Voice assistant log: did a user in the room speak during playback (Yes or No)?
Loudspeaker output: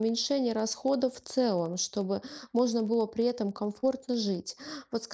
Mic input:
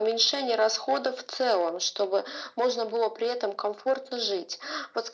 No